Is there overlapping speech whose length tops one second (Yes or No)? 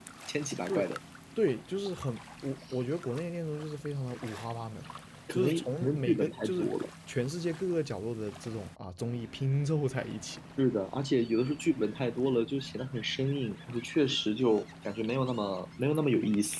Yes